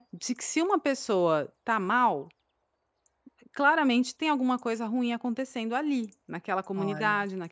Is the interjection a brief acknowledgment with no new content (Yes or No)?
Yes